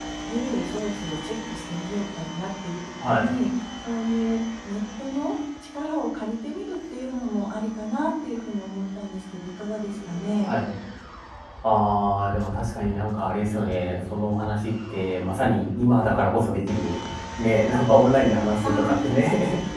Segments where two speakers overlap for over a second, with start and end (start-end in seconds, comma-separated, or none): none